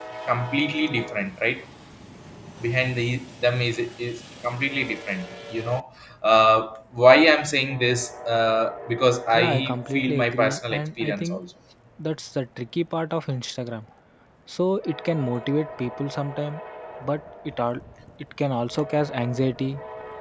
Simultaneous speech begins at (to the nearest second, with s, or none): 9 s